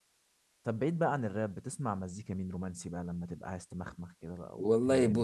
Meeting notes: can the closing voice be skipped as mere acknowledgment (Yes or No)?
No